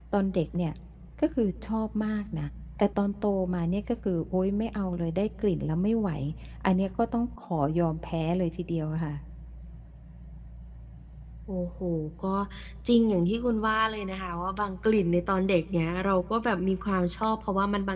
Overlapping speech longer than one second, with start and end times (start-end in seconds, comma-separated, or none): none